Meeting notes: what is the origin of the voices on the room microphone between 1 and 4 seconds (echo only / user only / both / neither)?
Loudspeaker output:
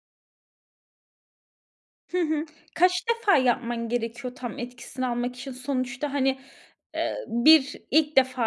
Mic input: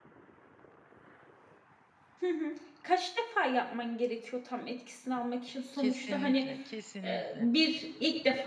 echo only